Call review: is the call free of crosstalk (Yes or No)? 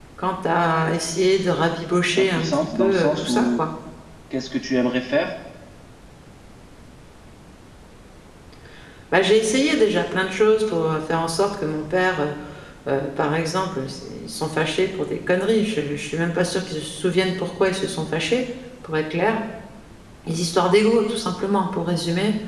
No